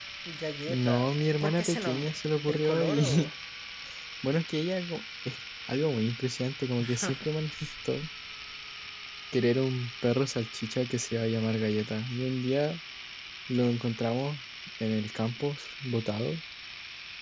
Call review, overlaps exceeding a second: present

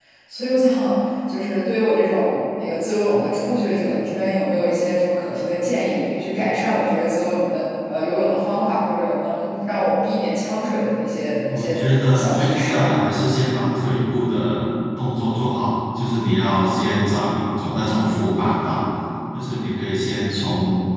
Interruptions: present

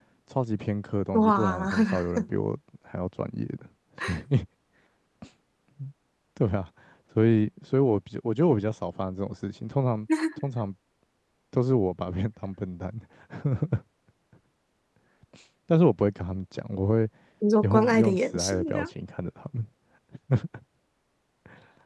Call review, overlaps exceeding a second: present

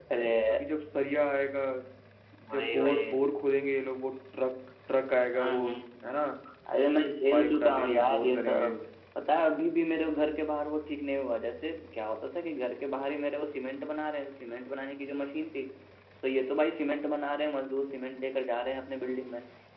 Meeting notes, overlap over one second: present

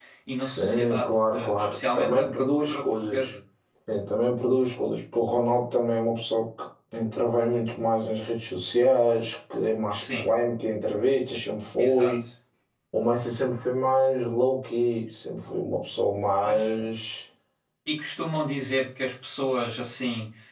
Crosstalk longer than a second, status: present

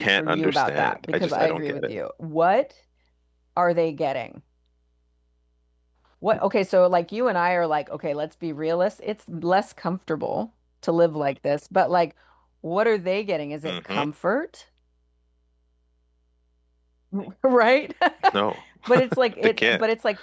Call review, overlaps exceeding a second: present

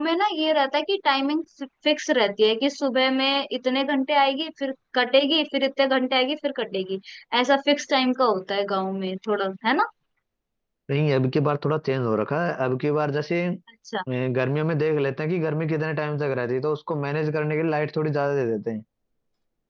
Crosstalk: none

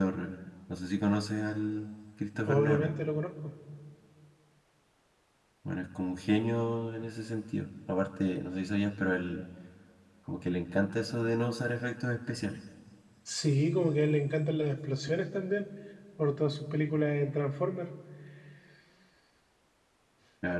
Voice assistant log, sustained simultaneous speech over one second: none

